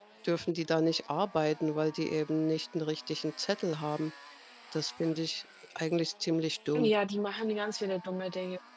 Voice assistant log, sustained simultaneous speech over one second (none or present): none